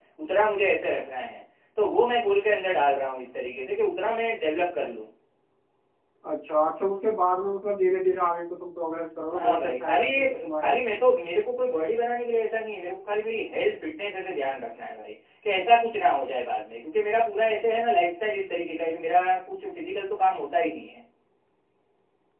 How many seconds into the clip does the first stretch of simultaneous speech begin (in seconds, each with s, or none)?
9.3 s